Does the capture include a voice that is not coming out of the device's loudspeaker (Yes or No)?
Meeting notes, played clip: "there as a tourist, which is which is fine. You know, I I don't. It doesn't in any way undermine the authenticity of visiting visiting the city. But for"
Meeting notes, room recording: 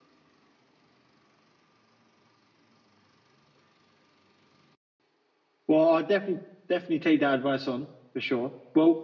Yes